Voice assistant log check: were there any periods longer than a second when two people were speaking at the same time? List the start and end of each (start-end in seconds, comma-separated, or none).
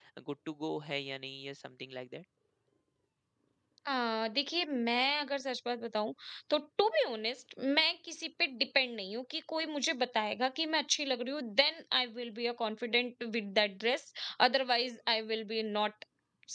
none